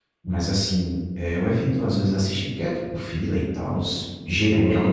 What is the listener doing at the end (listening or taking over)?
listening